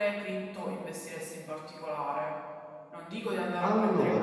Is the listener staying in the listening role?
Yes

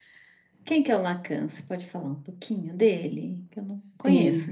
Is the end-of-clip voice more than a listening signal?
Yes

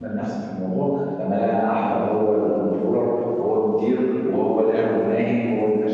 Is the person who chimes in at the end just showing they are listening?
Yes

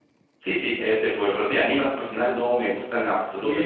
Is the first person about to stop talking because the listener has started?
Yes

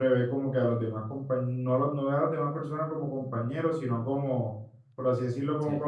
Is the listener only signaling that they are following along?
Yes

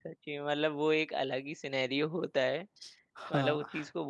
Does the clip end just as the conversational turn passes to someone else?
No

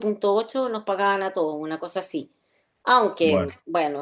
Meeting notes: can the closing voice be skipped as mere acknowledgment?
Yes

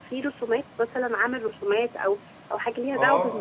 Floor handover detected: Yes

